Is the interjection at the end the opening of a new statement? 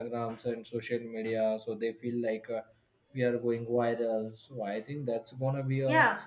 Yes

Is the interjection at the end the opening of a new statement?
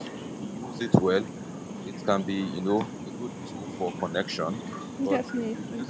No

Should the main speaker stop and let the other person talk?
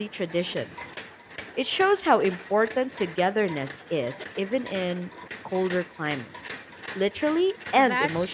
Yes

